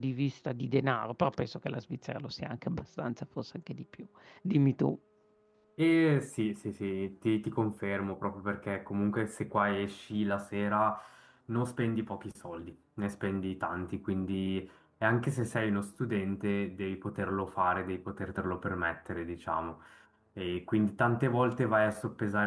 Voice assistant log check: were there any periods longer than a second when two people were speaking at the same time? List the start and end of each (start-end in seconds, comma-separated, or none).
none